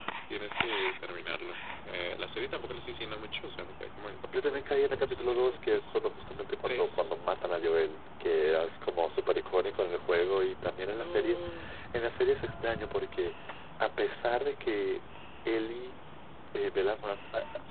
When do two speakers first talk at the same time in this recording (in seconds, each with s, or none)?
4.3 s